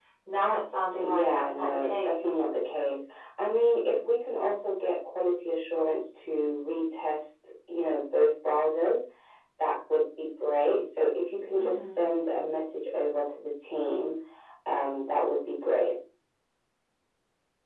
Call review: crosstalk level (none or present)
present